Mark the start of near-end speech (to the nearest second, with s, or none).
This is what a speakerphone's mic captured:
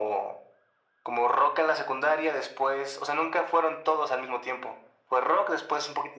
none